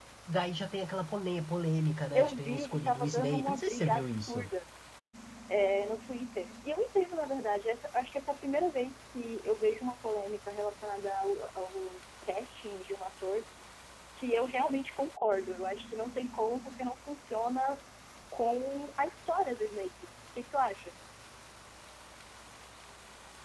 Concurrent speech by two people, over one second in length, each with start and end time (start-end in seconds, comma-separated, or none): 2.1-4.5